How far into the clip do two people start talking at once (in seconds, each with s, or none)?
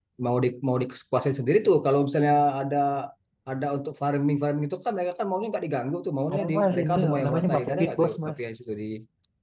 6.3 s